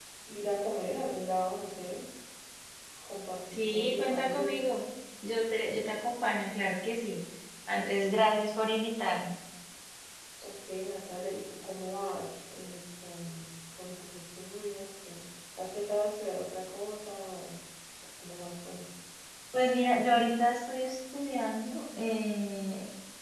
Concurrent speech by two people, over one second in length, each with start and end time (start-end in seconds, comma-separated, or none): 3.5-4.7